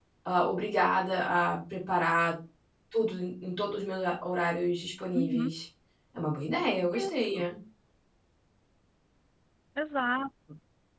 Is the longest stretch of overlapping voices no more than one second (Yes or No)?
Yes